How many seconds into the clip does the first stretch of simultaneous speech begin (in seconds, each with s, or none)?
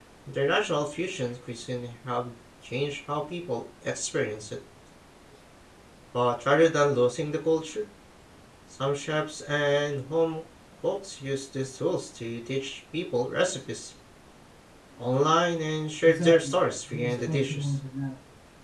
16.0 s